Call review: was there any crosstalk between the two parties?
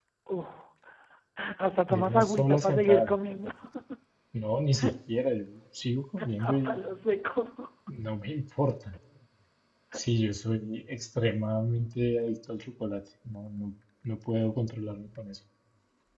Yes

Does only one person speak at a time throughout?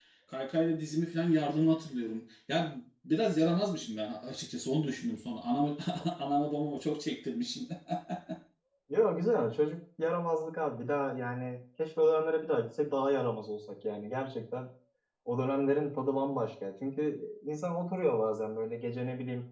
Yes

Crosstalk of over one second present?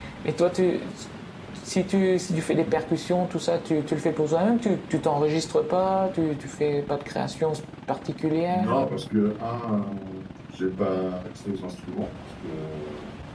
No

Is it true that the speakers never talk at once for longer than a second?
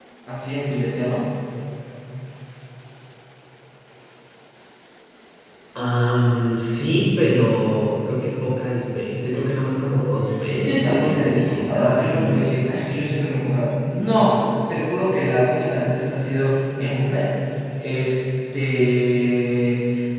No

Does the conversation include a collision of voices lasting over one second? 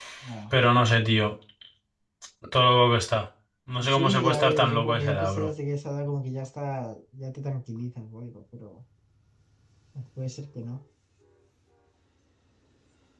Yes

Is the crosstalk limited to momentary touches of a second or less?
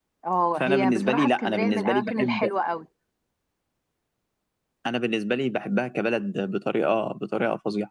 No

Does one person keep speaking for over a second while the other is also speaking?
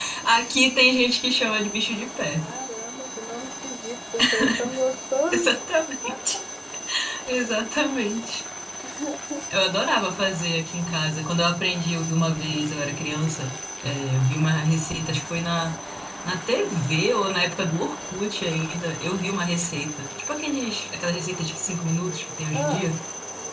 No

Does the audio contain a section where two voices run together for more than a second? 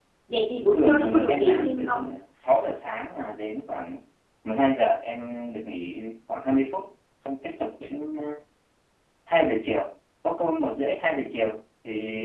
Yes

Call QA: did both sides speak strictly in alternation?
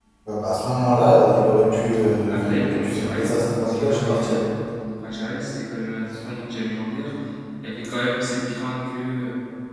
No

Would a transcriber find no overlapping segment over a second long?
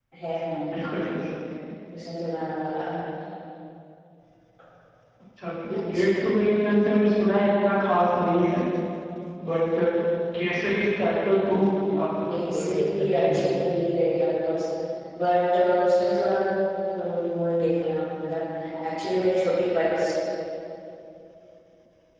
No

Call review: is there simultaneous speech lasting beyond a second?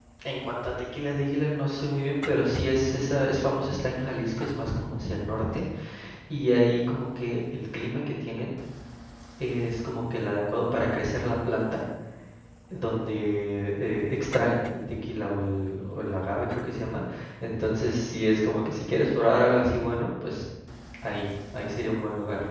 No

